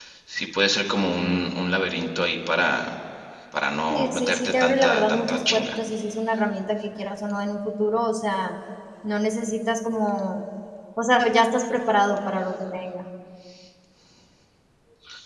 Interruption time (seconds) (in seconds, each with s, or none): 3.9 s